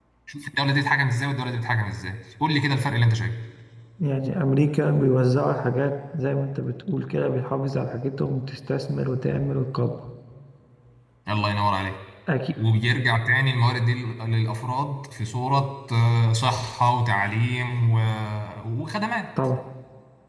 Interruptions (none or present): none